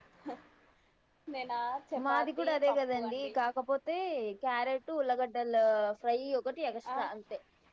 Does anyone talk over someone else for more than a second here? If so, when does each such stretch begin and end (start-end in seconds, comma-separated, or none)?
2.1-3.3